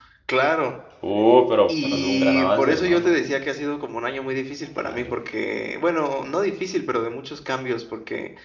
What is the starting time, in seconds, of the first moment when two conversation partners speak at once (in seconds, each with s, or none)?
1.7 s